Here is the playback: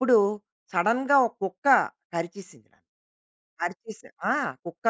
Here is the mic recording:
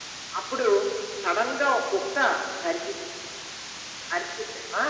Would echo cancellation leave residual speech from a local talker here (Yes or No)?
No